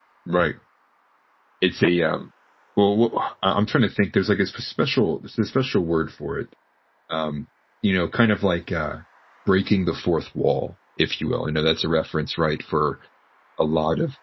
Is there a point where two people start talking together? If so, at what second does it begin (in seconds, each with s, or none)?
none